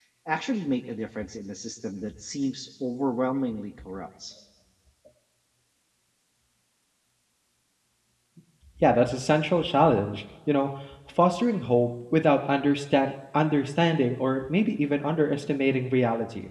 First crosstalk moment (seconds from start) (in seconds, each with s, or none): none